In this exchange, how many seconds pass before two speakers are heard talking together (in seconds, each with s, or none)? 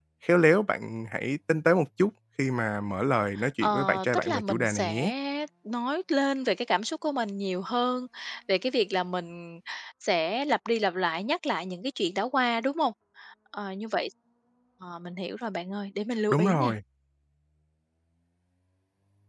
3.6 s